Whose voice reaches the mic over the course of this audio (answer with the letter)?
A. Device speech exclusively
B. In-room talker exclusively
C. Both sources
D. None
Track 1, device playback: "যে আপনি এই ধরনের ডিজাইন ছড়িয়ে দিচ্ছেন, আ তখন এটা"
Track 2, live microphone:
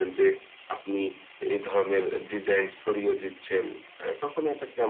A